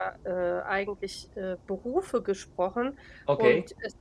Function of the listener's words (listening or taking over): listening